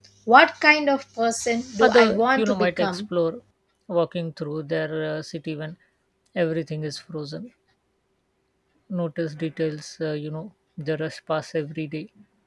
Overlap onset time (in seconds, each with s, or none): 1.8 s